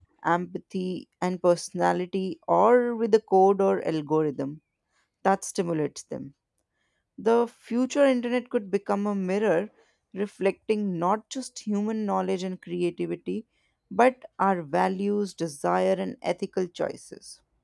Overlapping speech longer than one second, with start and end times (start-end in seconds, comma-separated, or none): none